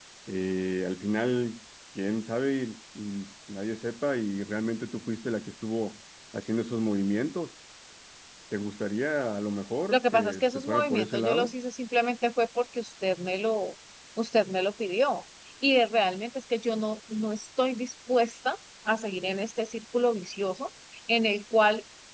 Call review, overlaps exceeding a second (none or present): present